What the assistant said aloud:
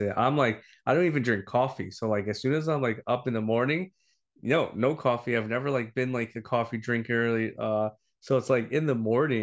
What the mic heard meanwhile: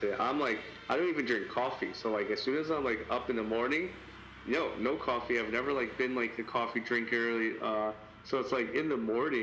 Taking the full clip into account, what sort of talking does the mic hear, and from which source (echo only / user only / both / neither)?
echo only